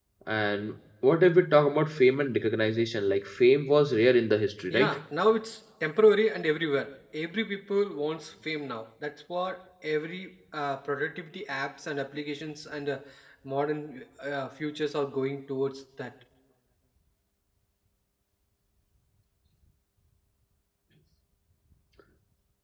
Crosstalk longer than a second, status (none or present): none